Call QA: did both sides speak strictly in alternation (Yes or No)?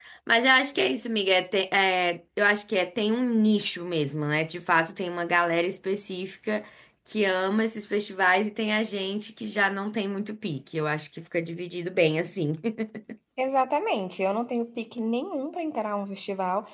Yes